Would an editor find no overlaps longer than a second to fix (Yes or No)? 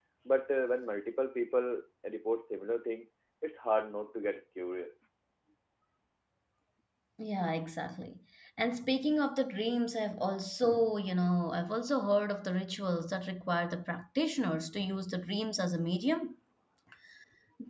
Yes